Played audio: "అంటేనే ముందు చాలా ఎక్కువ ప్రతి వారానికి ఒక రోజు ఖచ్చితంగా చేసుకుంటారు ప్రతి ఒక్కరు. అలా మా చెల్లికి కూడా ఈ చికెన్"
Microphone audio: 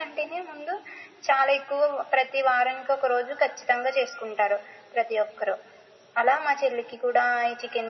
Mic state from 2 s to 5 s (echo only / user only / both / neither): echo only